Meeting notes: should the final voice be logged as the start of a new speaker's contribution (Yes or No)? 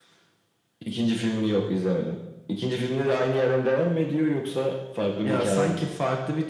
Yes